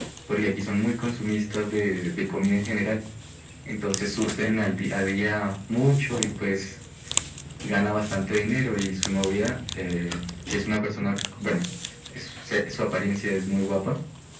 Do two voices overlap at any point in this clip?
No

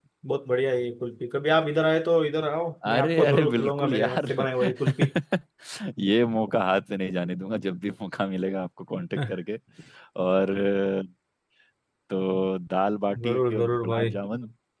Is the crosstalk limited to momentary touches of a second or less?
No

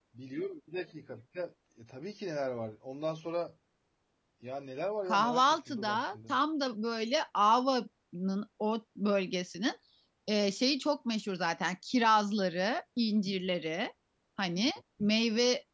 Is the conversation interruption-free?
No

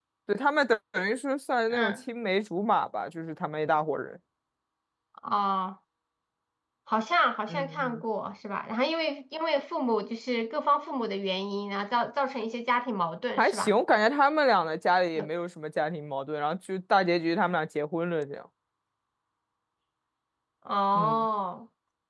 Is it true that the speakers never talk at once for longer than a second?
Yes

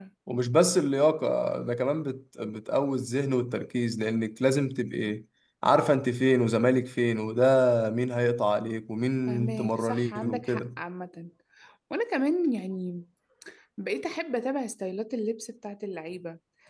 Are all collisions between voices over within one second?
No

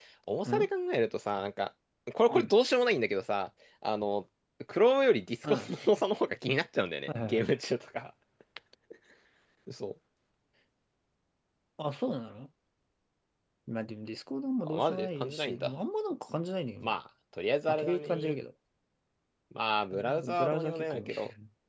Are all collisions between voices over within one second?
No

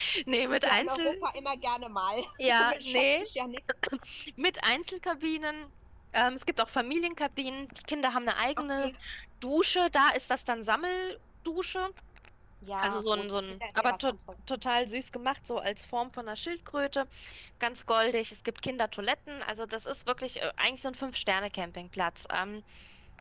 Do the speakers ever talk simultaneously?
Yes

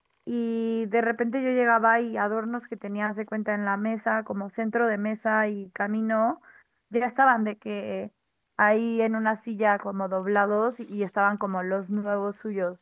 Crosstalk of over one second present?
No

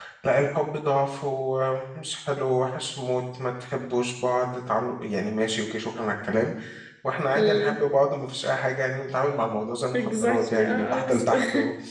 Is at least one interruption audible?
Yes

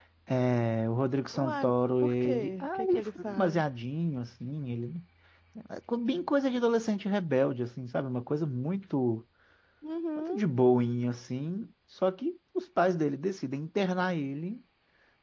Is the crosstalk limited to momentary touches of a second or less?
No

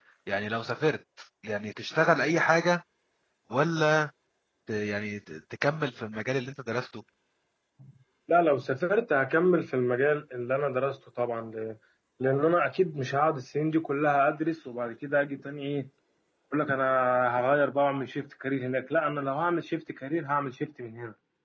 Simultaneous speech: No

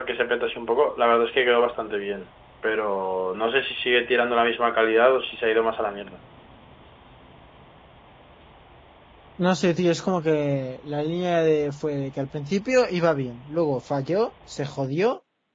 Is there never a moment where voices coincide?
Yes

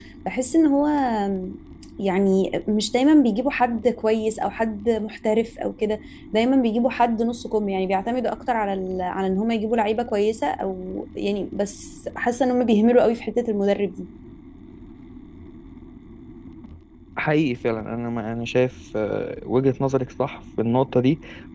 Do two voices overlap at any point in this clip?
No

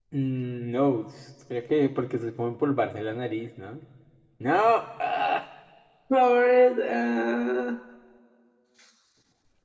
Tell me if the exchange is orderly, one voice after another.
Yes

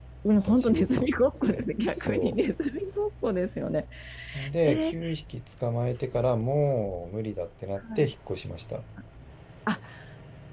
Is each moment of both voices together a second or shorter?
No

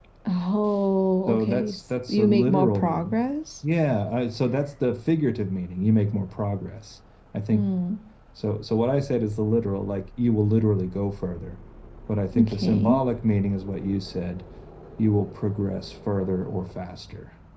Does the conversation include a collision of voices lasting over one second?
Yes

